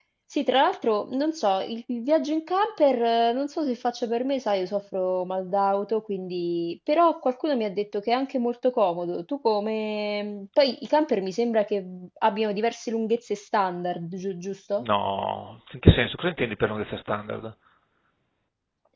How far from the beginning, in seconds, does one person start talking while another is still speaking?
none

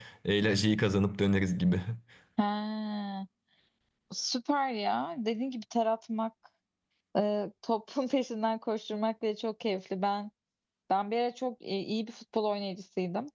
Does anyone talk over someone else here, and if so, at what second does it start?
none

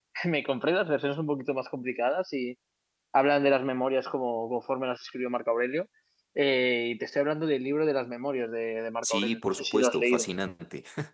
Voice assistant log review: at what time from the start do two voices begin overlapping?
9.0 s

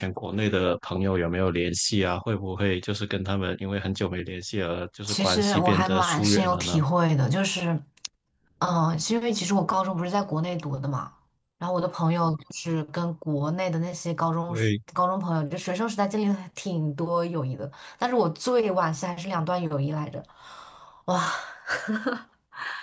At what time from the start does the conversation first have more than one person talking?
5.1 s

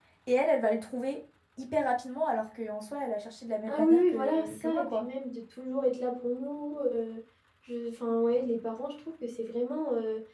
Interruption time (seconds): 3.7 s

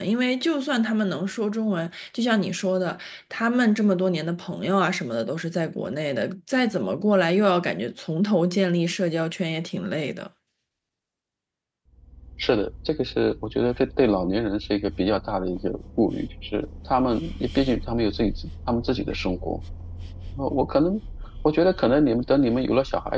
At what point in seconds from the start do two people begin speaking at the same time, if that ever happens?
none

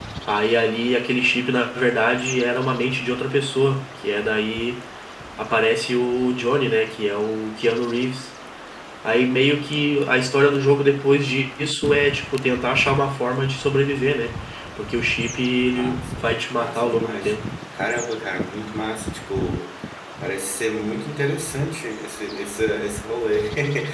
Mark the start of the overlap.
15.7 s

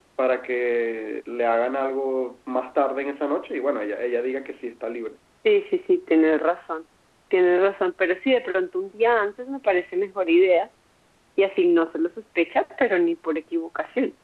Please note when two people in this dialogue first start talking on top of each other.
none

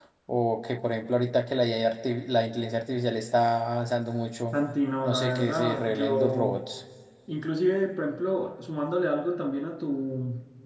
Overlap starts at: 5.0 s

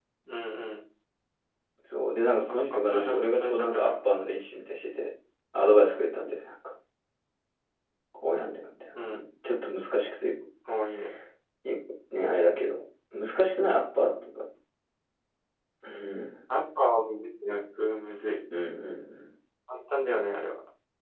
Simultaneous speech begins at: 2.5 s

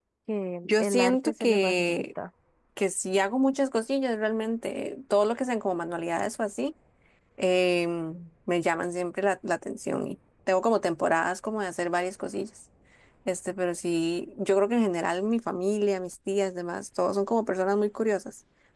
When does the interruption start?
0.6 s

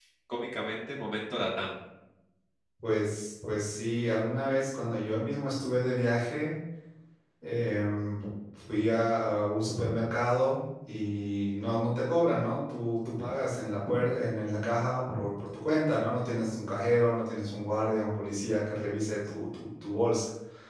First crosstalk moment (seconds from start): none

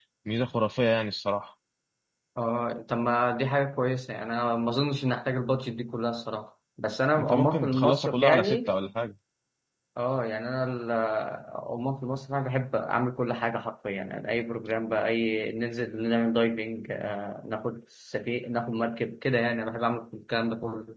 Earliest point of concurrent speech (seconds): 7.2 s

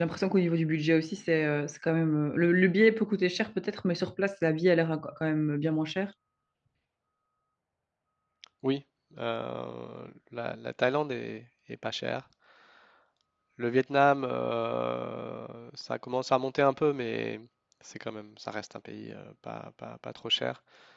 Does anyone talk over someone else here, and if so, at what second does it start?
none

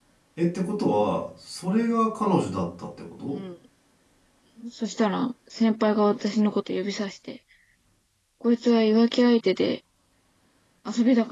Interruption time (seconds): none

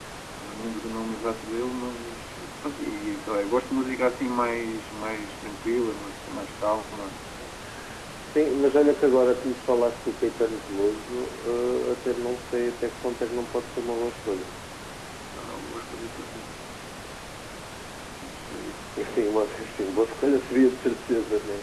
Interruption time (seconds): none

